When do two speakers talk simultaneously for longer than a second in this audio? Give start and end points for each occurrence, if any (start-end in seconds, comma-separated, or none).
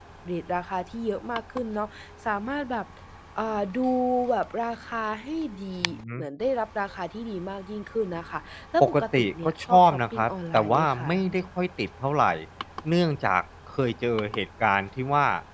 8.8-11.1